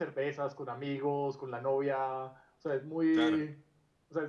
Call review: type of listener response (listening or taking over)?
listening